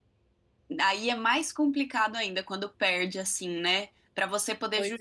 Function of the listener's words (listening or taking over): listening